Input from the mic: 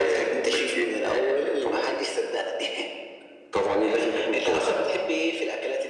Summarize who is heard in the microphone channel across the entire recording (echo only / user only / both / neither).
echo only